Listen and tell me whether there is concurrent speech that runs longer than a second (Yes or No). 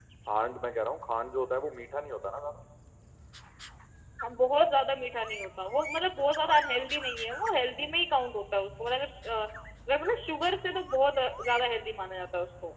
No